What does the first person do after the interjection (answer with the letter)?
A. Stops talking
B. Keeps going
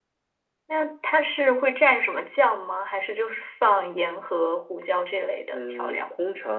A